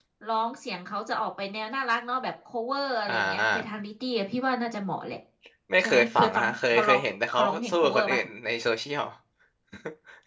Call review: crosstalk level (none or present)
present